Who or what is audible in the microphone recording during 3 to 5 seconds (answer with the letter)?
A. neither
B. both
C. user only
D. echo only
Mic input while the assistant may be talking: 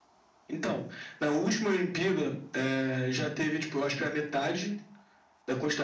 D